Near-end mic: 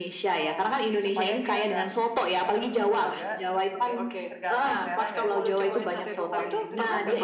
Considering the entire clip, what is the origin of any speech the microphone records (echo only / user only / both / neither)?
both